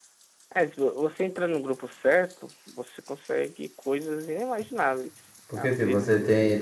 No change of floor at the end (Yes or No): No